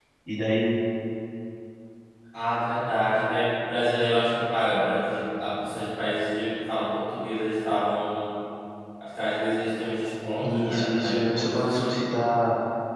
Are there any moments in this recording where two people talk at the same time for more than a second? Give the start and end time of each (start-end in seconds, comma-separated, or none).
10.4-12.0